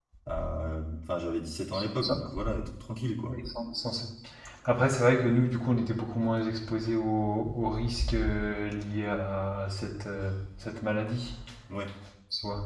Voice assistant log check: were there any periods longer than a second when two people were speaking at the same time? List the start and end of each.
none

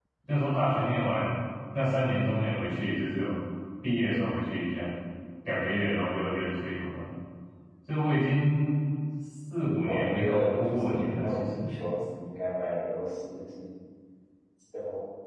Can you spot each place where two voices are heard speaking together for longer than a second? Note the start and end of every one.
9.8-11.6

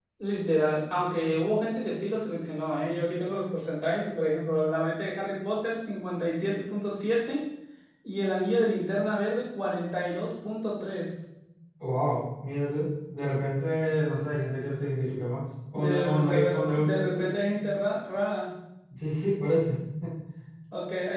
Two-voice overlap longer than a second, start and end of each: 15.8-17.2

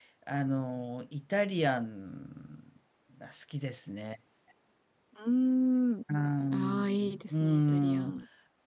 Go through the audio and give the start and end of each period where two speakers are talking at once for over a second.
6.5-8.1

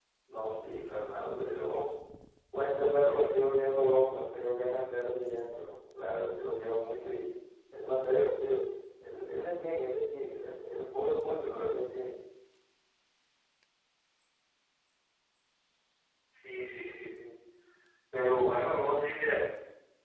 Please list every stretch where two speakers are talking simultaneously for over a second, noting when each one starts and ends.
none

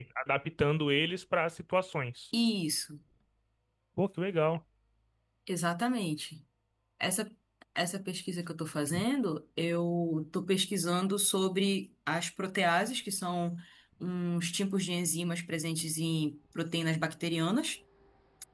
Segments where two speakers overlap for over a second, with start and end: none

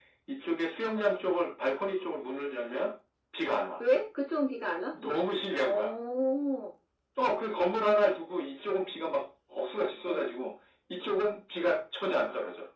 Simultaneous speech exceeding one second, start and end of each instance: none

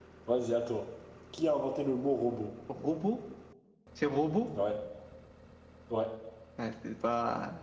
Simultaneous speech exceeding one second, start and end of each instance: none

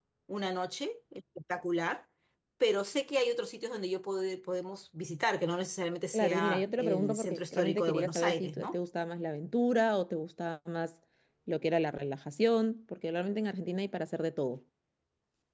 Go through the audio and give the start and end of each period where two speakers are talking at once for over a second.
6.1-8.7

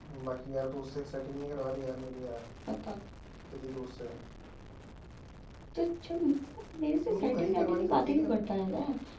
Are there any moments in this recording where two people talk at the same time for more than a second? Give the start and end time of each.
7.1-8.3

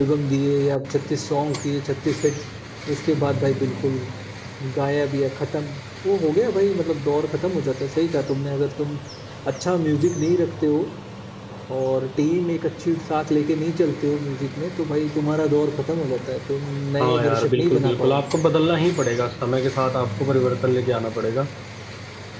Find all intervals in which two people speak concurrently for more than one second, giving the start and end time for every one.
17.0-18.2

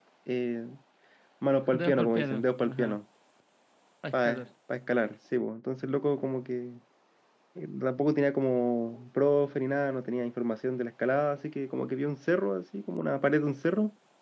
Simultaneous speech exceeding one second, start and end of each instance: 1.7-3.0

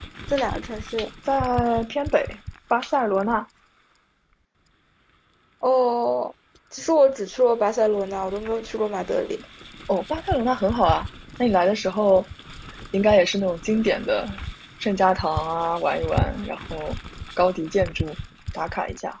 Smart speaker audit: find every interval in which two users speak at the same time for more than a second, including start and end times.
none

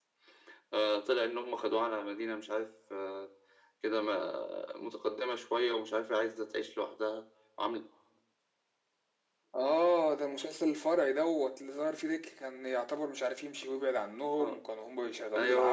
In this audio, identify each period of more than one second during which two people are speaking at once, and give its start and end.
none

